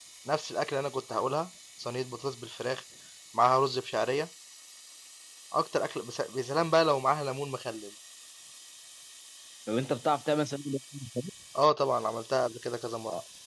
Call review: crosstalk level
none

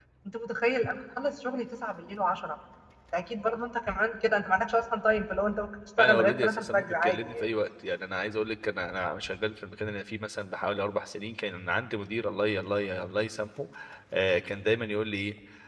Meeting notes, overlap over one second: present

